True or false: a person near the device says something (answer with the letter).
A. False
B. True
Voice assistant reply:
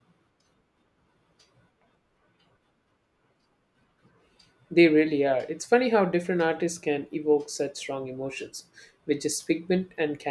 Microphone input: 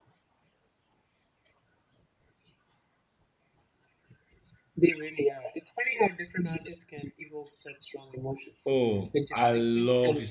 B